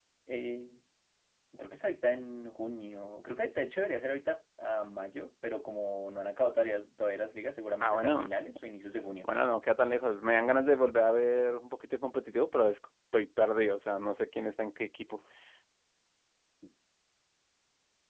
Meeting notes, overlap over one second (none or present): none